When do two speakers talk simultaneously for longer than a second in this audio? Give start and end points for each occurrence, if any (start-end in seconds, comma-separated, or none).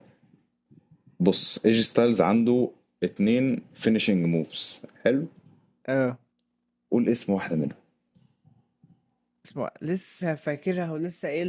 none